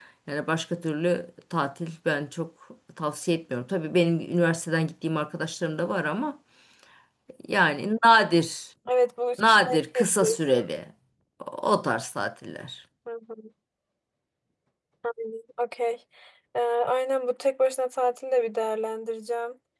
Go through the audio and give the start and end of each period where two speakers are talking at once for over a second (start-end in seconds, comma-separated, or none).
9.4-10.6